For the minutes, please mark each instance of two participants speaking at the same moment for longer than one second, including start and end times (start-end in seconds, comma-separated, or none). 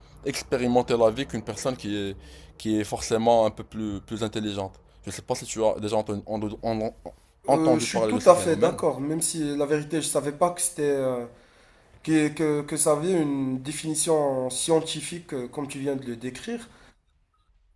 7.5-8.8